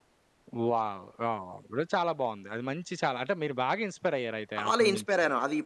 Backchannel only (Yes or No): No